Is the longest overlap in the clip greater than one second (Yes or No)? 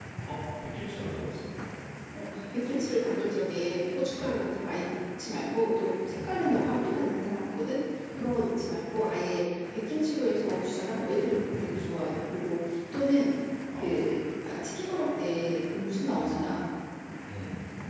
No